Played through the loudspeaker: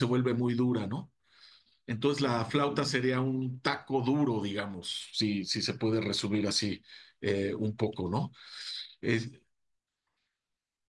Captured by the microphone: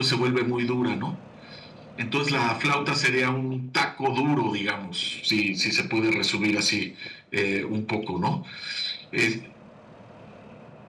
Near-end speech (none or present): none